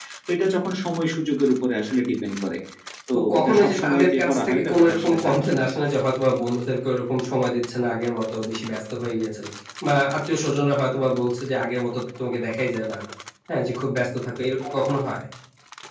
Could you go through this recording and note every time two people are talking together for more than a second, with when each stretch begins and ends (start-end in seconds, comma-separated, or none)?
3.1-5.5